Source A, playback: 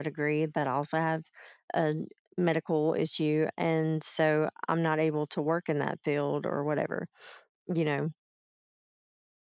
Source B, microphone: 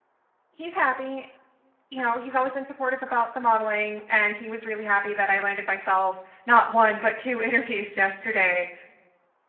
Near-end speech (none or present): present